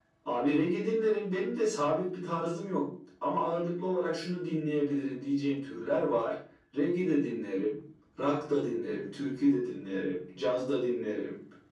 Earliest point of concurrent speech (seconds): none

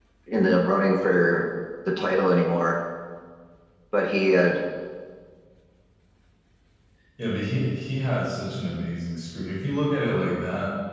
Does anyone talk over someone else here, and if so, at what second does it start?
none

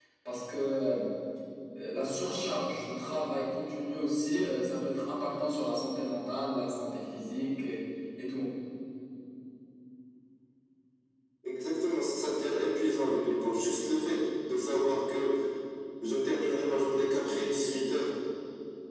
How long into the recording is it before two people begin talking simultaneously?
none

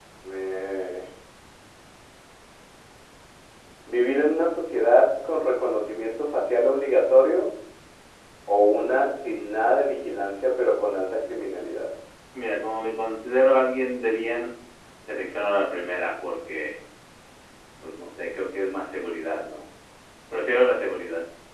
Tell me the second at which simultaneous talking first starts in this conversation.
none

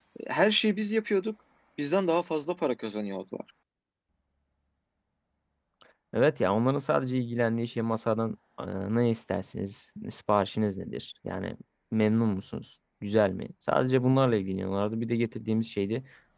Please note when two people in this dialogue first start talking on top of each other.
none

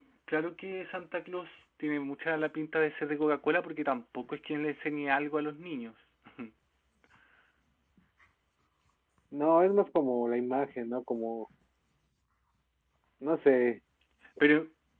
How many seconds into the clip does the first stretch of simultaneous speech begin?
none

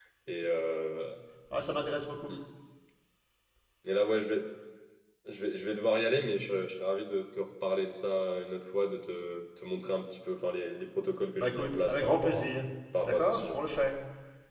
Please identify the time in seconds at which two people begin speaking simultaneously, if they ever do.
11.4 s

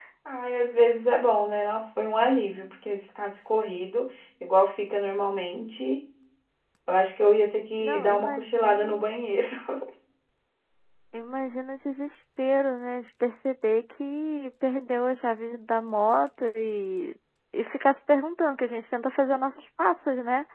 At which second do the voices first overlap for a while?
7.8 s

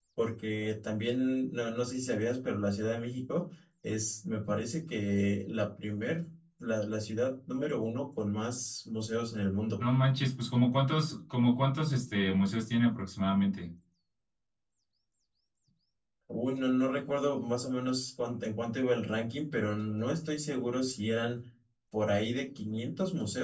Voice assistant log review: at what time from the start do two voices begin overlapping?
none

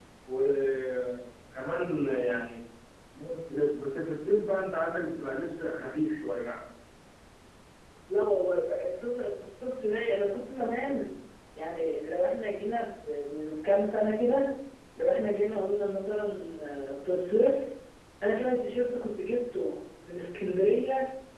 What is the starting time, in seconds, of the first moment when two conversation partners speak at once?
none

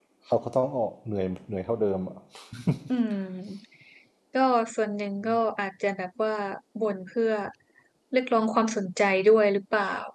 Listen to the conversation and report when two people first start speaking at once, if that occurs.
none

